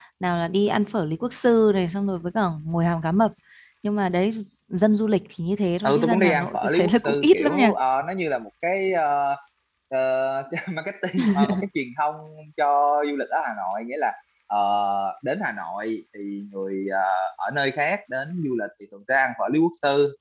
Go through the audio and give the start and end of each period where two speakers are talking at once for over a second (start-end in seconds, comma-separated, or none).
5.8-7.7